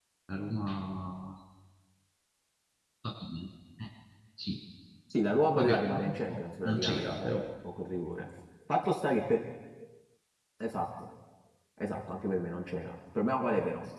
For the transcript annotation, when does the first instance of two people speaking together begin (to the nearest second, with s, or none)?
6 s